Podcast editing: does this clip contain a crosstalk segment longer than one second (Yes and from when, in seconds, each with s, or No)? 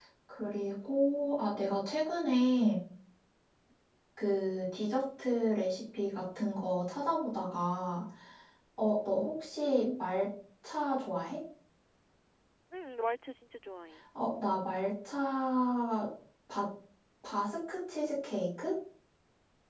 No